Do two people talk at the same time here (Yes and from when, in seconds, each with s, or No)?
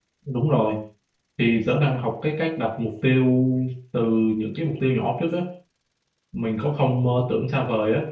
No